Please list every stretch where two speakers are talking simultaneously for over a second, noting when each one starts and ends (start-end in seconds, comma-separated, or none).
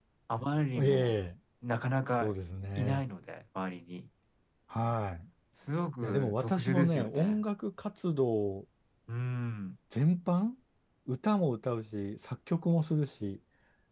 6.0-7.4